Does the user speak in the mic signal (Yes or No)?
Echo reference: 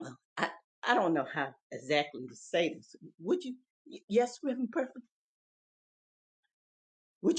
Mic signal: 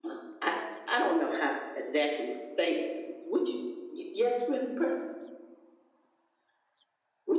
No